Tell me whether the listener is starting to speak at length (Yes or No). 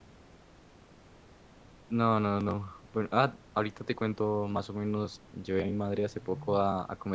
No